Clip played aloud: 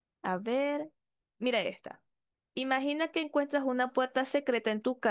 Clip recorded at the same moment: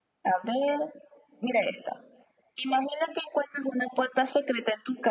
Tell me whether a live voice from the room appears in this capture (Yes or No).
No